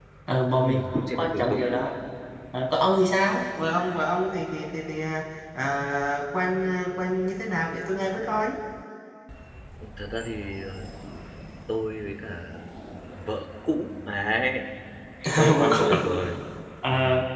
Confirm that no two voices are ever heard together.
No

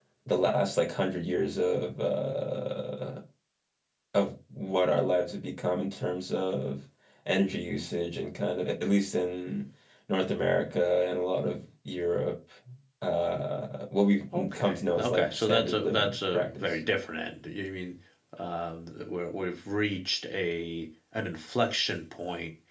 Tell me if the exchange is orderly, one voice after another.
No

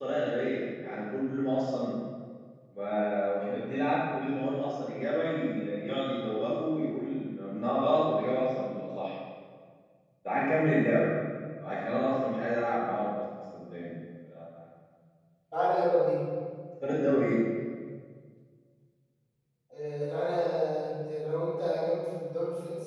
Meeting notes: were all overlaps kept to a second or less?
Yes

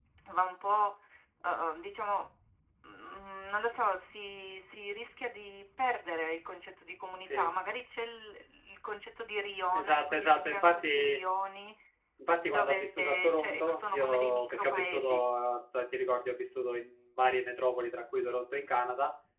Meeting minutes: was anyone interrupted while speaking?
Yes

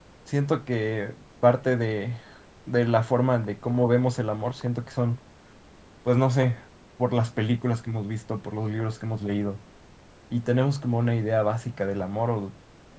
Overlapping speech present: No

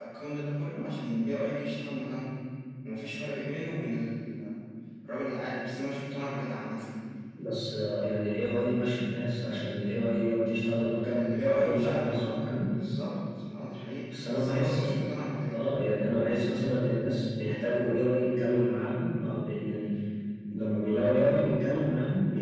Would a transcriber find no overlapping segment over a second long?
No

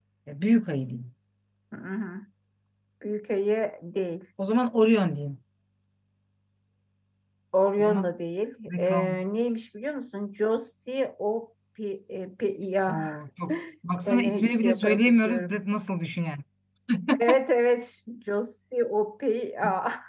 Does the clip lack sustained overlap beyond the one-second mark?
No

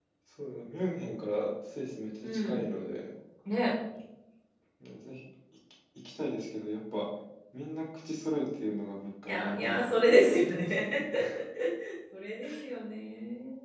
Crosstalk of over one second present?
Yes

